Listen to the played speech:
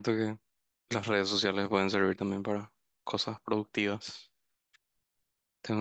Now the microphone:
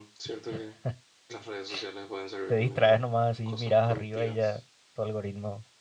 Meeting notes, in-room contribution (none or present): present